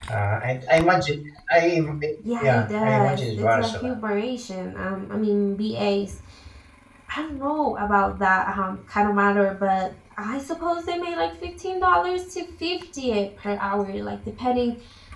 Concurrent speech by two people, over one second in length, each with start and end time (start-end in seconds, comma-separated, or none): 2.4-4.0